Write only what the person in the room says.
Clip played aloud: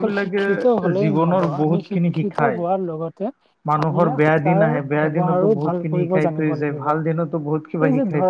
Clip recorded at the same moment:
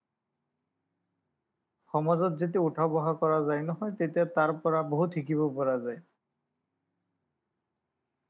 সমাজত যেতিয়া উ। উঠা বহা কৰা যায় নহয় তেতিয়া তাৰ পৰা বহুত শিকিব পৰা যায়

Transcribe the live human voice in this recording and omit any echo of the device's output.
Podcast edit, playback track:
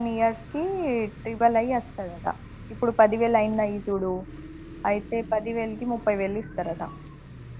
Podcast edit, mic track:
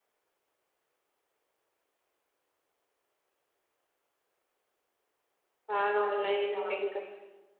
బాగా ఉన్నాయి ఇంకా

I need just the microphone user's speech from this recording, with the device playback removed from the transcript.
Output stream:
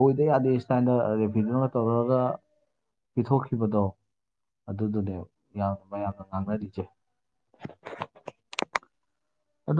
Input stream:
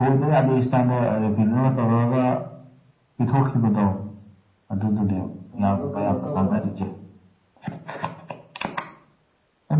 ꯎꯝ ꯑꯗꯨ ꯀꯩꯅꯣ ꯇꯧꯕ꯭ꯔꯣ

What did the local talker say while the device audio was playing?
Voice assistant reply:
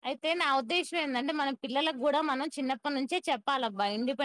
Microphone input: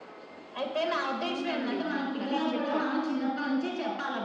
అవునండి మీరు కరెక్ట్ చెప్పారు,

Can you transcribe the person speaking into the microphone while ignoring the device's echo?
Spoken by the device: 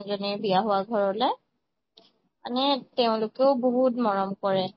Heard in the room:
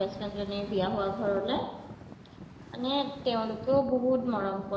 none

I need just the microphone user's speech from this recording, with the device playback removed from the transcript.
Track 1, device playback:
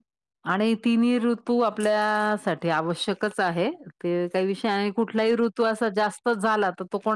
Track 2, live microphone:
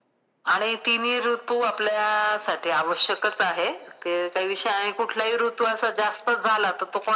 none

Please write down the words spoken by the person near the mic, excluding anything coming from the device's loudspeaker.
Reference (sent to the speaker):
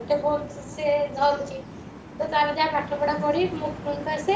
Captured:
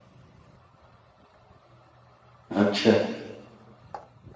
ଆଚ୍ଛା

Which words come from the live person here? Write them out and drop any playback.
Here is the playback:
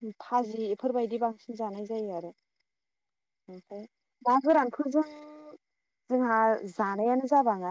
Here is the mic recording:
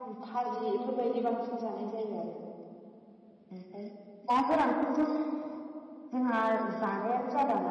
none

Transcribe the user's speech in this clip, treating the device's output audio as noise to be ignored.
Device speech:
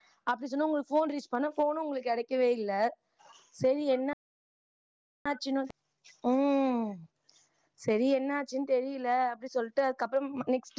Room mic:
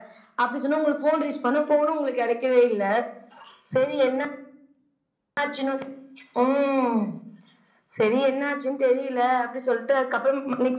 none

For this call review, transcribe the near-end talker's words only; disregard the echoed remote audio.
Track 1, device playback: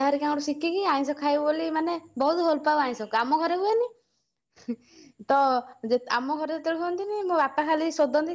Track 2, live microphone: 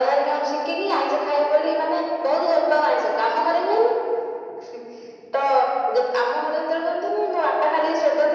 none

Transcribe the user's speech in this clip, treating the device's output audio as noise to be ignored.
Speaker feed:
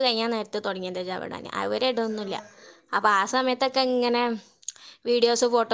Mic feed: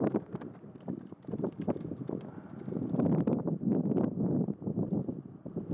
none

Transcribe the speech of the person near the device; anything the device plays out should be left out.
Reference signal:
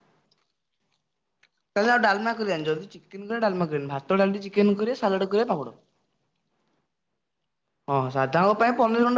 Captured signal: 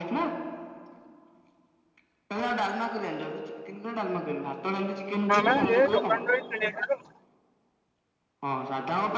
ଆମେ ଏ ଦୋକାନ ଦେଇକି ସିଲେଇ କରିଦେଉଚି।

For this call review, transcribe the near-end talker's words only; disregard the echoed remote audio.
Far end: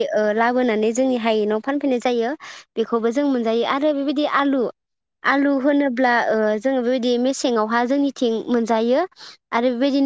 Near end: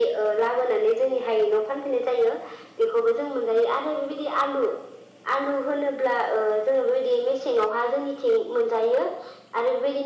none

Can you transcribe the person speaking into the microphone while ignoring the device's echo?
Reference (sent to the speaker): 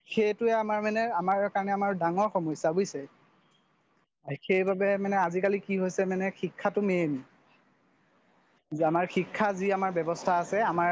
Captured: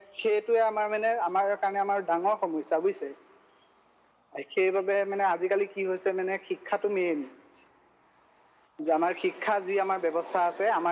none

